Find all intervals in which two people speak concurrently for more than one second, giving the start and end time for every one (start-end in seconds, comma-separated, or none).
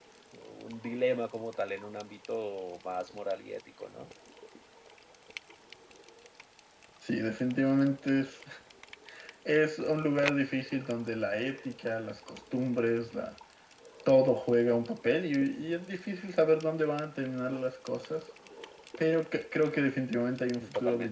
none